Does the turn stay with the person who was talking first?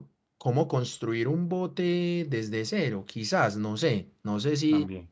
Yes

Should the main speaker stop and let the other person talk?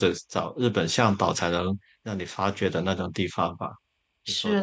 Yes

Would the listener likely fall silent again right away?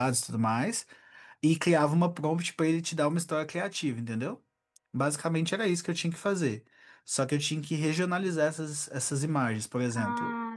Yes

